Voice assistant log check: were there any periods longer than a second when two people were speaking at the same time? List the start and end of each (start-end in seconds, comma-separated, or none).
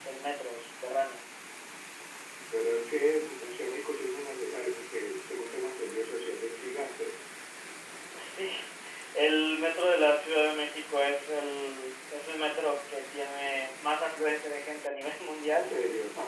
none